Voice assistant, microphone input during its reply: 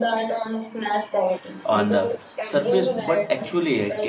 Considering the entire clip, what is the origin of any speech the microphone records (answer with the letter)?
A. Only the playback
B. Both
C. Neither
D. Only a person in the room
B